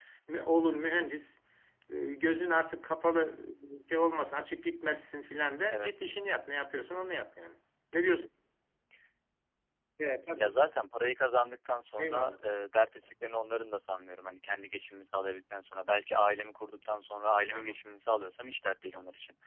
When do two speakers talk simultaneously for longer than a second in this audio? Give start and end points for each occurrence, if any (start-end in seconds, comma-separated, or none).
none